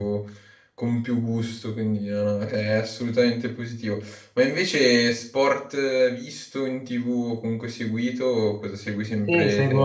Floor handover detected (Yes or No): Yes